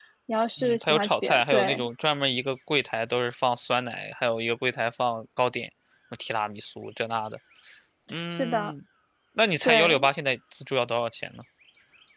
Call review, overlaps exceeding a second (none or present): present